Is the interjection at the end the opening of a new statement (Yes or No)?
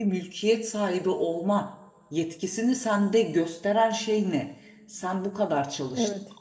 No